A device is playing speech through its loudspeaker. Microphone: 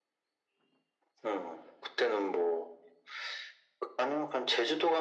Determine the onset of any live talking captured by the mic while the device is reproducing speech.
none

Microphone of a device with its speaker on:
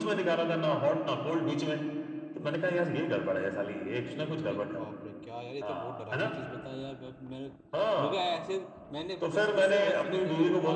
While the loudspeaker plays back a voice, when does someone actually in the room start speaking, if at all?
4.4 s

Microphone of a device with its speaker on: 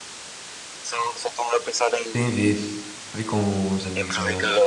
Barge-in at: 2.1 s

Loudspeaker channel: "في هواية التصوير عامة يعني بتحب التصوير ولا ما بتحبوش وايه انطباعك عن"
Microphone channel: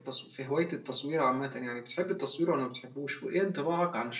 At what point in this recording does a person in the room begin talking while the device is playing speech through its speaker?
none

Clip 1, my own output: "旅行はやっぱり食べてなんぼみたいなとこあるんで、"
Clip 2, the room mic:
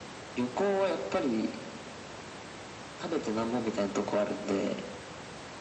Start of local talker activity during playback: none

